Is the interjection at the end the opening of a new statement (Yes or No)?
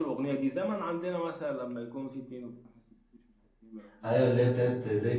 Yes